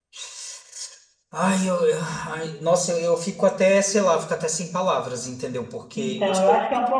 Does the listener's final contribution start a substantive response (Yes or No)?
Yes